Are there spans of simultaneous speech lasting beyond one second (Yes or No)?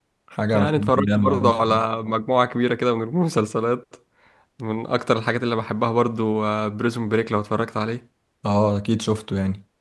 Yes